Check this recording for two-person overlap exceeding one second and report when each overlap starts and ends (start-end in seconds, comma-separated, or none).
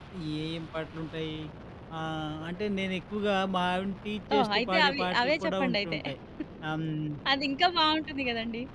4.3-6.0